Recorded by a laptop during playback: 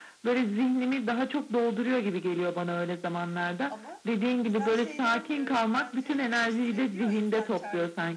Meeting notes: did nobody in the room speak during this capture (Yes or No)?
No